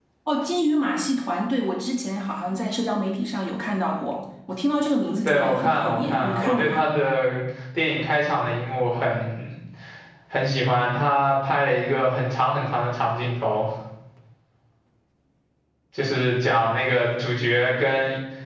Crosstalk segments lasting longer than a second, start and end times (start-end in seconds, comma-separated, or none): 5.2-6.9